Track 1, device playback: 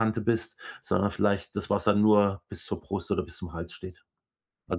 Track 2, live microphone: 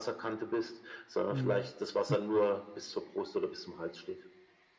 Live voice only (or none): Mhm. Hm.